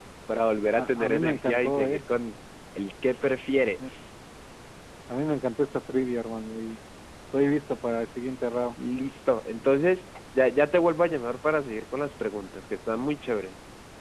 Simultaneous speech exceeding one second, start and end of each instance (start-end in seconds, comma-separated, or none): 0.8-2.0